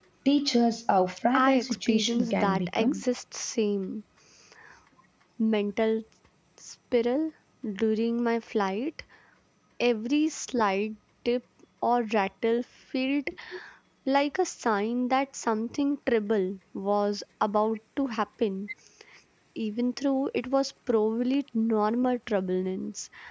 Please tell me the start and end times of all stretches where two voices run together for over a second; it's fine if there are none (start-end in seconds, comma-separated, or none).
1.4-3.0